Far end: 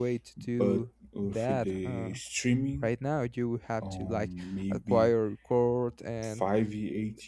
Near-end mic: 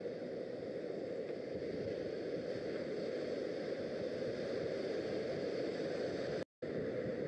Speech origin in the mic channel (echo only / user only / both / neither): neither